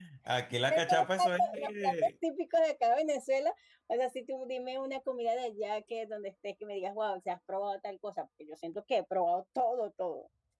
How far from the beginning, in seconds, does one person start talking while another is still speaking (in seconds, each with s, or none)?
0.7 s